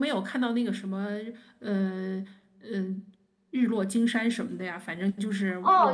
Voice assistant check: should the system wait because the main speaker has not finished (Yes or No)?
No